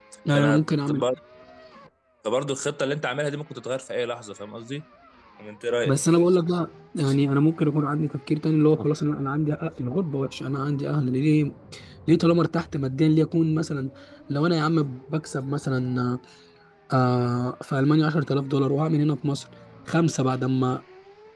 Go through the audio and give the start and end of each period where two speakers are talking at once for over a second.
none

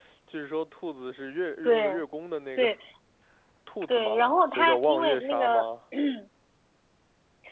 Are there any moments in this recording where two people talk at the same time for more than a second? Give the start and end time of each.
3.9-5.7

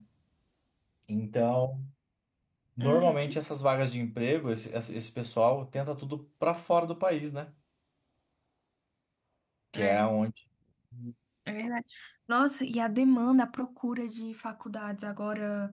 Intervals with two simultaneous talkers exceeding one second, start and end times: none

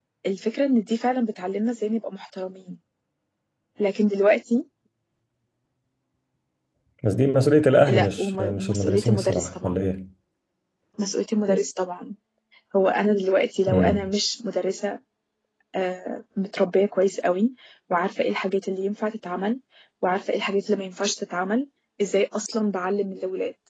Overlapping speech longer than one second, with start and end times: 7.9-9.8

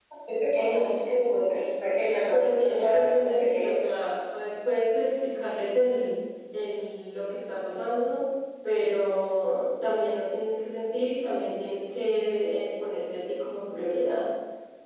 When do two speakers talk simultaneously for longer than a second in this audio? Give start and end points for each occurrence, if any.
2.3-3.7

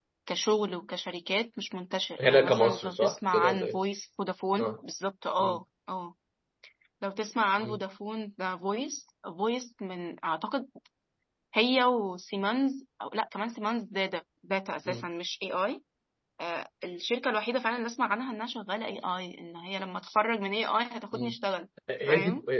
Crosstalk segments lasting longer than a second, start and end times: 2.2-3.8

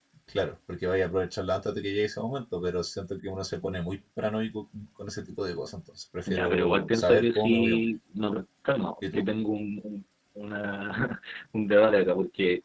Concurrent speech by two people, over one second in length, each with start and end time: 6.3-7.9

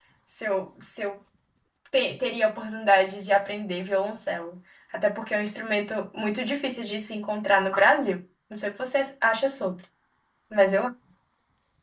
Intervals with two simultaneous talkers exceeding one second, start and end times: none

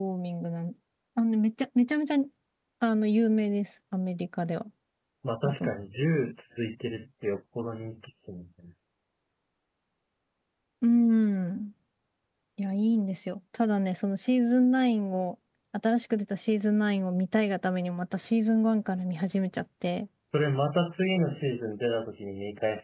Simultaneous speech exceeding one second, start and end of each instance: none

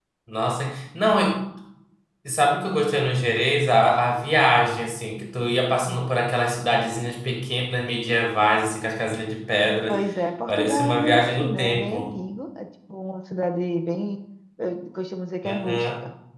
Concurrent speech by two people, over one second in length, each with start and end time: 10.5-12.0

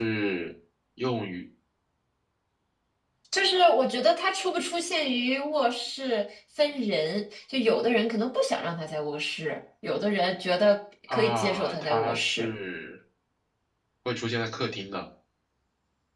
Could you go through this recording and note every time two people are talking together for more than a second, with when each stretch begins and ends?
11.1-12.5

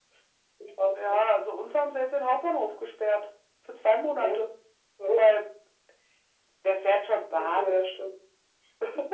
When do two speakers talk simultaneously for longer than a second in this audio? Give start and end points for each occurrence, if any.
none

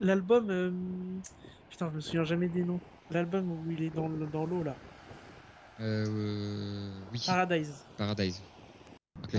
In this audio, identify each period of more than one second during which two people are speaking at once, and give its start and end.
none

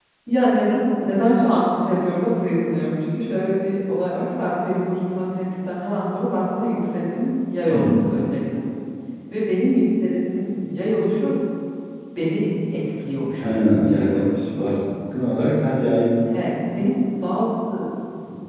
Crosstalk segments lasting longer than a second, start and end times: 13.4-14.8

